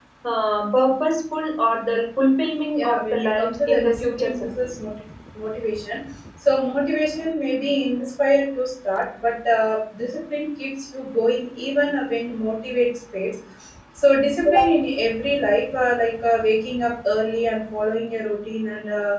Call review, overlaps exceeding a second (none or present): present